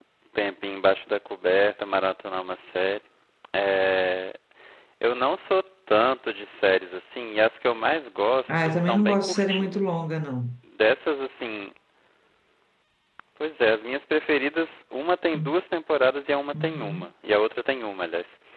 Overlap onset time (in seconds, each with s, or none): 8.5 s